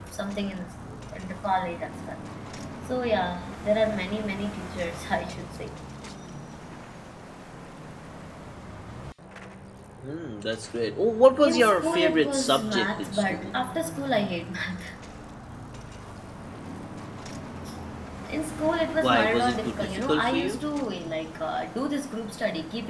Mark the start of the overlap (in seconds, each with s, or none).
11.4 s